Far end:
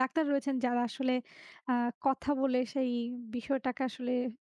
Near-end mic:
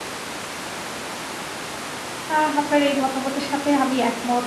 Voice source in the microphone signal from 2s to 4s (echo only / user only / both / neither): user only